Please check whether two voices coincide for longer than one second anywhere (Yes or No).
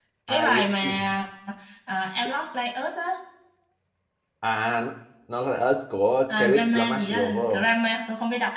Yes